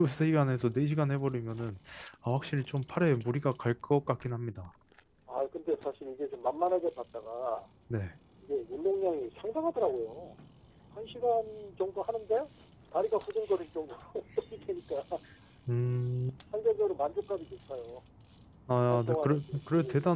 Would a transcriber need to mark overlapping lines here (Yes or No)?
Yes